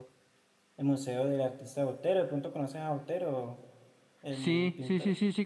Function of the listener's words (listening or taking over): taking over